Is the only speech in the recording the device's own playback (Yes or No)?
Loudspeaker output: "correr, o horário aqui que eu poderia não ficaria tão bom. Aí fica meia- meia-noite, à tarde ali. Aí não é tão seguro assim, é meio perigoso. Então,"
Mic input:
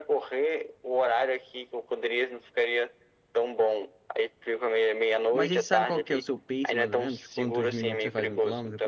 No